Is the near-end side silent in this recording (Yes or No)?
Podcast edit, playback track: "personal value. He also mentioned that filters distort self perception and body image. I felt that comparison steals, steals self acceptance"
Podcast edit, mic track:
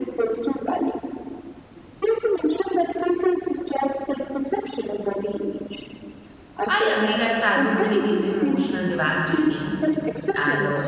No